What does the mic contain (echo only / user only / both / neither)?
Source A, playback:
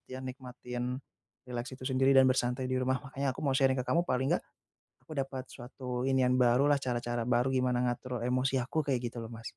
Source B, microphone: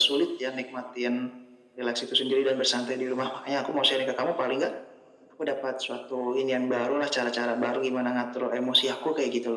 echo only